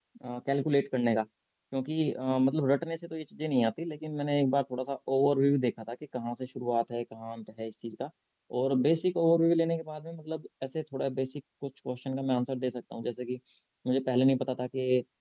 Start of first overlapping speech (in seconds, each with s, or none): none